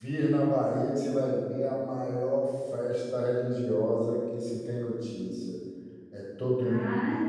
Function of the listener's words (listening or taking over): taking over